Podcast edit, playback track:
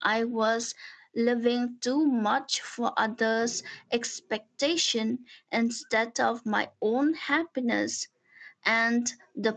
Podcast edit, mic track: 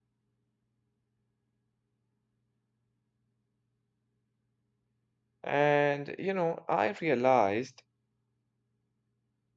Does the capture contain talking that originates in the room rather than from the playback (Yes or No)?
Yes